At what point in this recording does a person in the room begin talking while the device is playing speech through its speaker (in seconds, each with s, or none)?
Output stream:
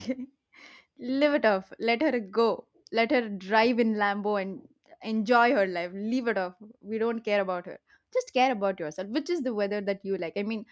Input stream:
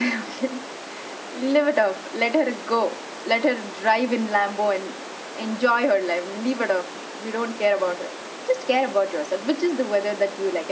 none